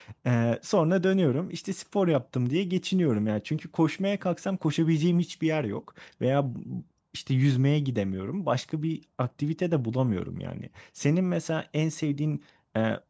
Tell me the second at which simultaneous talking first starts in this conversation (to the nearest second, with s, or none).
none